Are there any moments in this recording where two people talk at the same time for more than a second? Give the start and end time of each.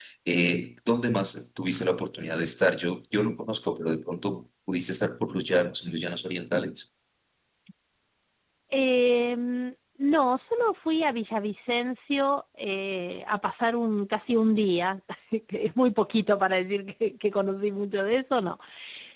none

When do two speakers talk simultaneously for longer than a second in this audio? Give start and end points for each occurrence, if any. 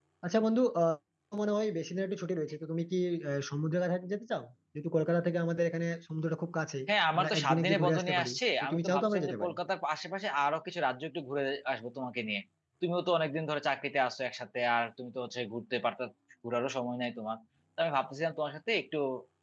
7.2-9.6

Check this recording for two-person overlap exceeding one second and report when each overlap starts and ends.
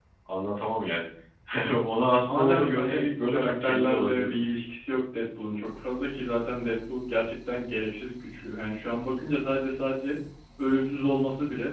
2.2-4.4

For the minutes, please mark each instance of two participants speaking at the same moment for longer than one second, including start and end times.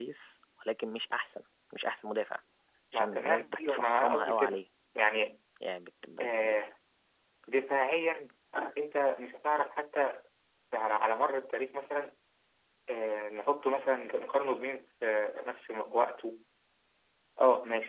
2.9-4.6

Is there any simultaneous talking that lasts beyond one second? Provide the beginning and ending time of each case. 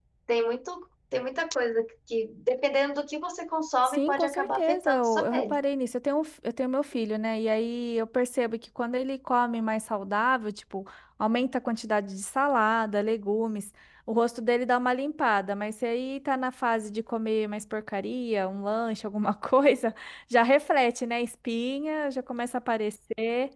3.9-5.6

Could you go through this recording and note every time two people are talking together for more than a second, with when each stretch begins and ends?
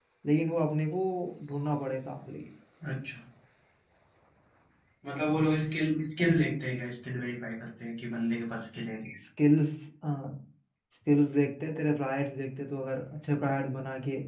none

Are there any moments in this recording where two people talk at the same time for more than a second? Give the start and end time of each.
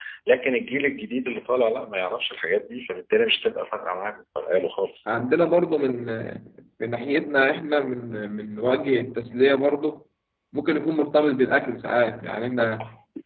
none

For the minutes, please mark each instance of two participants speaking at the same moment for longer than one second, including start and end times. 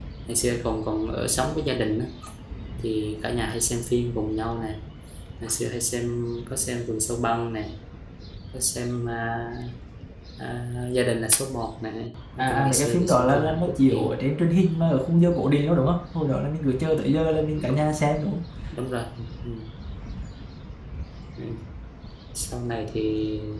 12.4-14.1

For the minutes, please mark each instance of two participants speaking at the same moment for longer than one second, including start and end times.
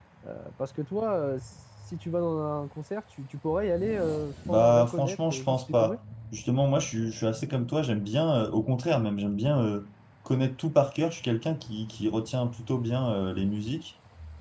4.5-6.0

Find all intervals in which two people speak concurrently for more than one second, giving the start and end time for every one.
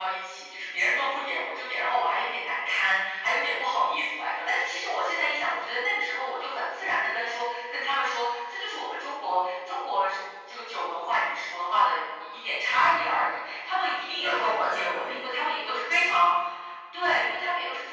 14.2-15.7

